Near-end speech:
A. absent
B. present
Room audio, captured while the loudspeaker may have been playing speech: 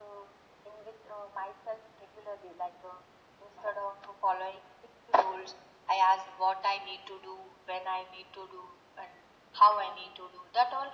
A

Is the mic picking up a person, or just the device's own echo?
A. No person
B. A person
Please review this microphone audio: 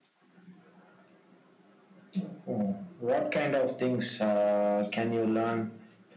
A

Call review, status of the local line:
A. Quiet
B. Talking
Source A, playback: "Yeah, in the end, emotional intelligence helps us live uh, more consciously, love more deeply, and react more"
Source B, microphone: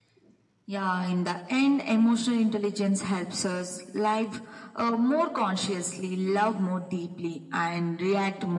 A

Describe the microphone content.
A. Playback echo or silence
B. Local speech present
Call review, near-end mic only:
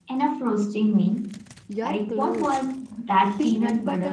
B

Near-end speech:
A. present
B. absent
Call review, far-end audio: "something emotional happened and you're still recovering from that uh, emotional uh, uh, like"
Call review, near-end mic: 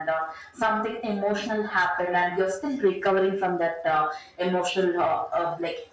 B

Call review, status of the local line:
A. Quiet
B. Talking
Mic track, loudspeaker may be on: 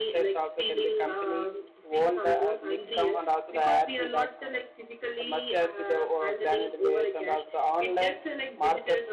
B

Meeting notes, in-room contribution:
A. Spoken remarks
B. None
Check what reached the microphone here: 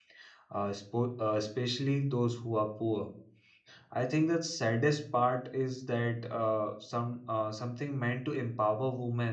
A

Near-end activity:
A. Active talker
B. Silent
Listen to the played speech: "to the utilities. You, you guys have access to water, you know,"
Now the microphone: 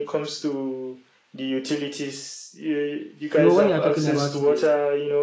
A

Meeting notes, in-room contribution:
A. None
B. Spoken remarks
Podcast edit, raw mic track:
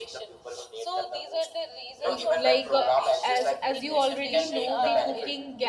B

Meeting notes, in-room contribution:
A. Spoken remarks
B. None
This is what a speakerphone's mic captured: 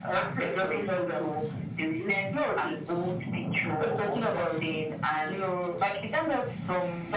B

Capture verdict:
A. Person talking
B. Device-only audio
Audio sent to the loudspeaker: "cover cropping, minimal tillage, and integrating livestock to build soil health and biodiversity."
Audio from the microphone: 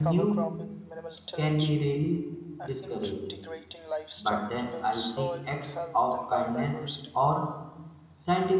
A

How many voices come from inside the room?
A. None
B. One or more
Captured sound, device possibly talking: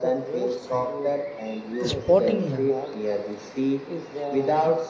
B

